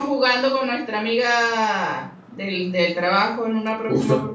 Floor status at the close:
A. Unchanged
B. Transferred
B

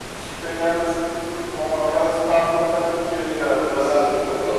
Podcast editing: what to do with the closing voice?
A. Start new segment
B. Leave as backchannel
A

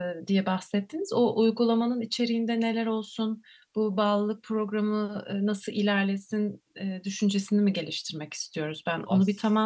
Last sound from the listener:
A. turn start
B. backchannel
B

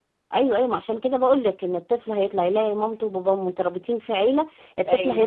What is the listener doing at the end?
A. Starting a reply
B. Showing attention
A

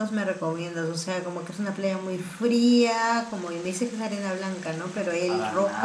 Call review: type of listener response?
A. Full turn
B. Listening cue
B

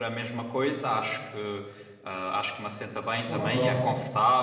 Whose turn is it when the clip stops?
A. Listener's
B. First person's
B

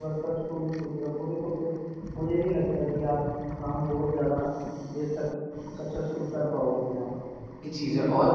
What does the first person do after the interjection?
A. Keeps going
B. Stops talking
B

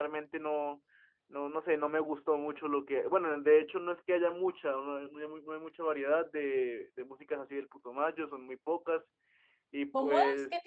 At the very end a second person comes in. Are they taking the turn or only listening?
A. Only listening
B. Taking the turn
B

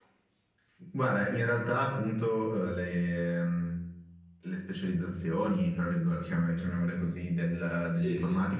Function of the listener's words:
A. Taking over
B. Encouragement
B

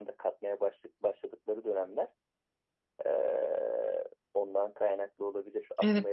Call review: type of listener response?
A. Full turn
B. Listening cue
A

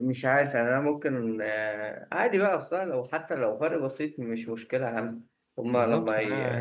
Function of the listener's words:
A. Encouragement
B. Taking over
B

